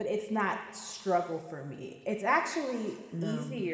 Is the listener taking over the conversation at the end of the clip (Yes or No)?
No